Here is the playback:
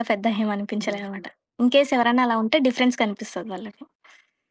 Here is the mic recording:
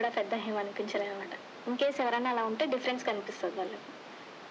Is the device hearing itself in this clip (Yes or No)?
Yes